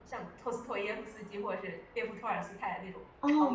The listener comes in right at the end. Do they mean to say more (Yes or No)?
Yes